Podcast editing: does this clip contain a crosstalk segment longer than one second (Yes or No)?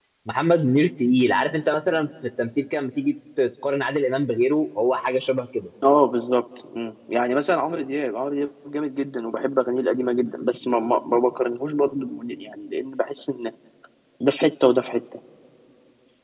No